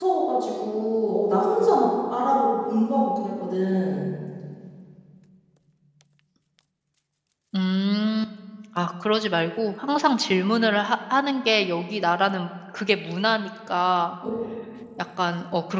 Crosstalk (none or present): none